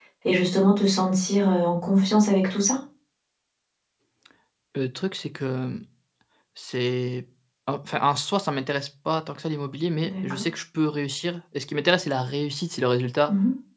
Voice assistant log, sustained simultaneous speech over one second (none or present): none